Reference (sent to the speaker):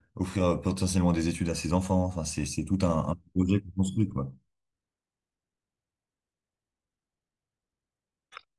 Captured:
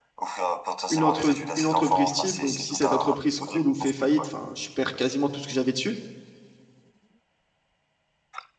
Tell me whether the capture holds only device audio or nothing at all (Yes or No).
No